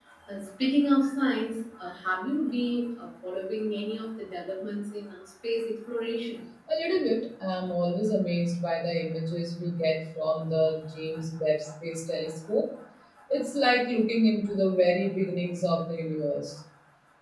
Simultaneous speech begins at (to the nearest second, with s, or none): none